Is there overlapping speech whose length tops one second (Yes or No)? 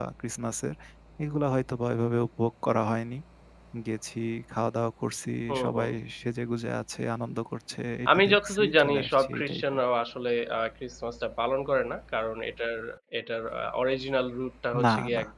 Yes